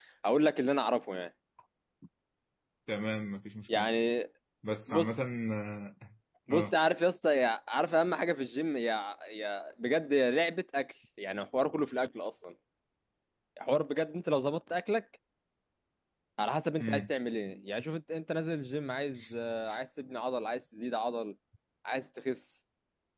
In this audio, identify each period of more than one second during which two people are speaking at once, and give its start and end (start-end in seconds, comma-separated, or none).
none